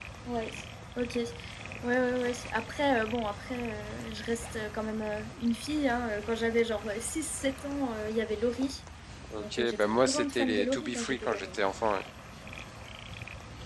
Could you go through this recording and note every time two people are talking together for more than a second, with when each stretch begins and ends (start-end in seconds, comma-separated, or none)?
9.4-11.5